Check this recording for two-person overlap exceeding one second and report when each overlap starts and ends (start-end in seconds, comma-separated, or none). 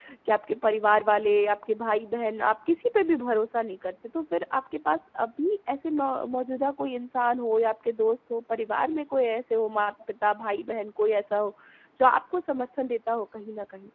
none